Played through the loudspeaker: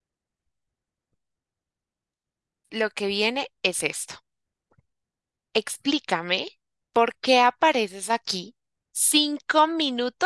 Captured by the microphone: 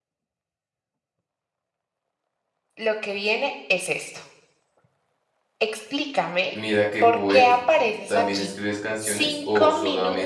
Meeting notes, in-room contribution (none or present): present